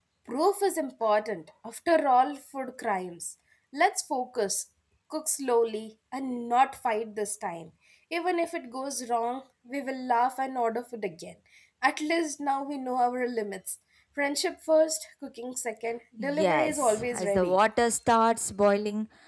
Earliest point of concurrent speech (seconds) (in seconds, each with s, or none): 16.2 s